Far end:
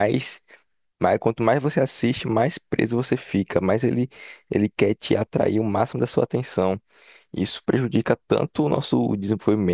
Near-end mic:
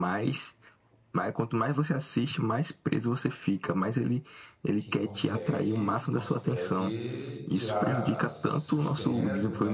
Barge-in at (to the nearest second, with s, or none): 5 s